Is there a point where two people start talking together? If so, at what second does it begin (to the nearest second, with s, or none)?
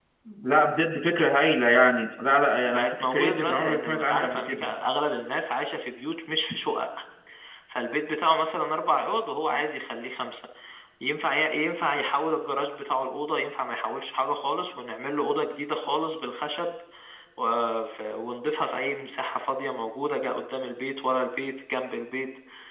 3 s